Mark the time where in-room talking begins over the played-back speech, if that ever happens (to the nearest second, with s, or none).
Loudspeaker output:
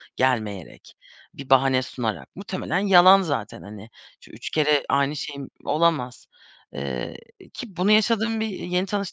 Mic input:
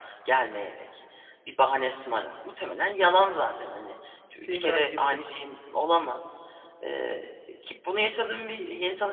4 s